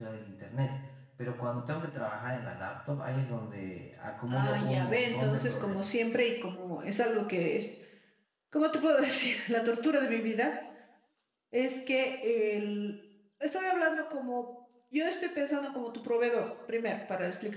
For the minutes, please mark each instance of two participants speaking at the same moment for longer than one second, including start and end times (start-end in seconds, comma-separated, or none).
4.3-6.0